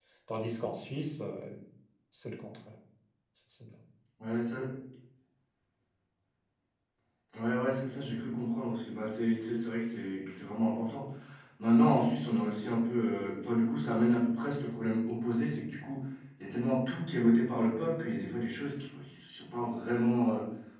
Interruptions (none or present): none